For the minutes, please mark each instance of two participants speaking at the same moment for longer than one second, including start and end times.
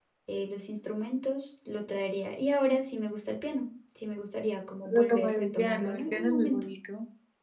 4.8-6.6

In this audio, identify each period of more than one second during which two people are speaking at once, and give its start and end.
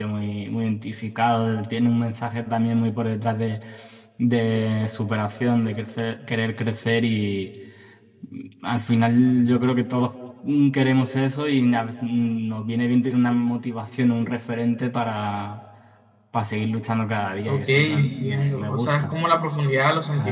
17.5-19.1

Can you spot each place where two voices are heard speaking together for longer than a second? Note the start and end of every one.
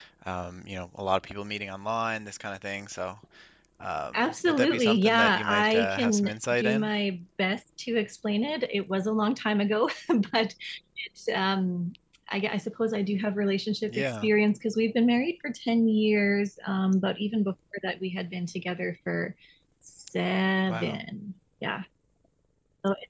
4.1-6.9

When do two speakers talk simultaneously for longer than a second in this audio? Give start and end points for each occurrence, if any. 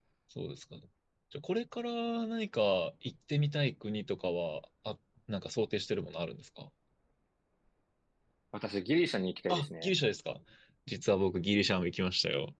none

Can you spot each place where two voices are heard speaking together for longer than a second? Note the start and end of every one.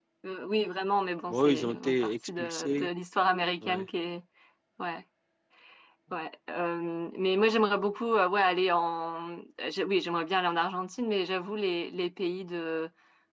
1.3-2.9

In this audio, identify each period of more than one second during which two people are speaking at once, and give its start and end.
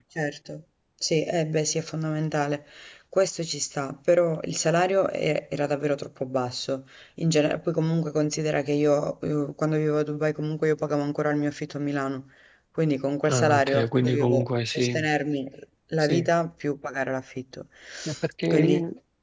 13.3-15.0

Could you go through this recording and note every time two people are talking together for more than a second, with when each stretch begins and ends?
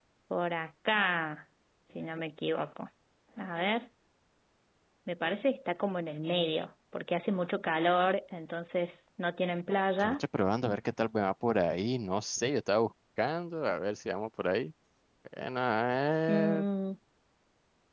none

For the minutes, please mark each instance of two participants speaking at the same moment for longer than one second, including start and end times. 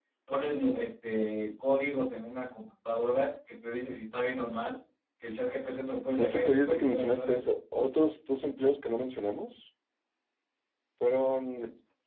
6.2-7.4

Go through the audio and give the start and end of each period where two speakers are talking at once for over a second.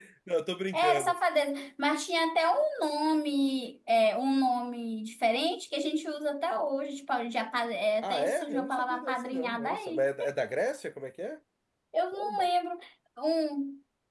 8.0-10.1

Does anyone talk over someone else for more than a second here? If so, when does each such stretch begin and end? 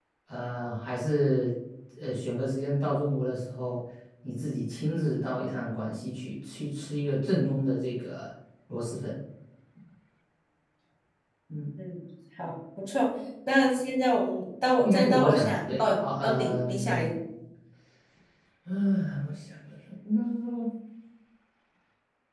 14.8-17.1

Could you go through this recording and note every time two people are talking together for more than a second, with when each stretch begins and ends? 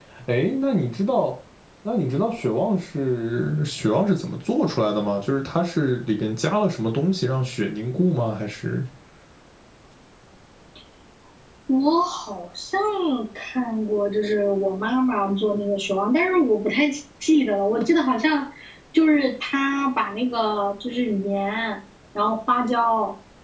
none

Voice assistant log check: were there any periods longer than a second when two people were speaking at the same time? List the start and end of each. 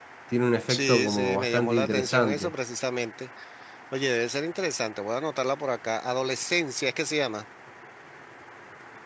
0.7-2.5

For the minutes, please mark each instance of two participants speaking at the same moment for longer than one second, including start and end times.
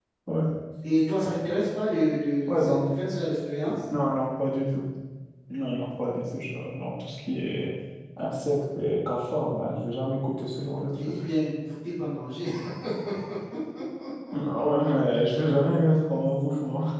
none

